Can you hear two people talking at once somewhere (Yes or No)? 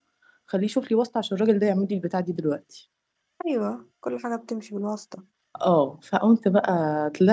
No